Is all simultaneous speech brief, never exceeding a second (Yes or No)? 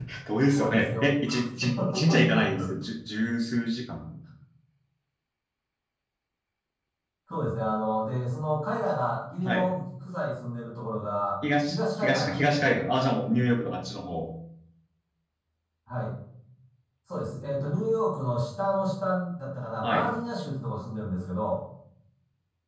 No